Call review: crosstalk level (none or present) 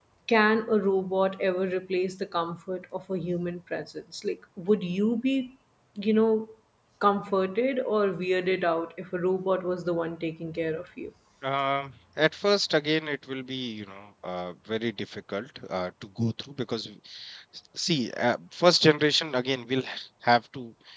none